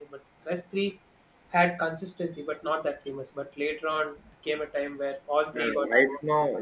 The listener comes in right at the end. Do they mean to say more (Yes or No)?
Yes